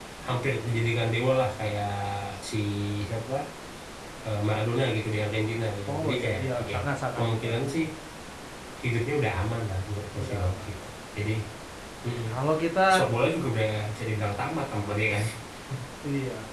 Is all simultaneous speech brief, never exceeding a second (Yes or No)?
No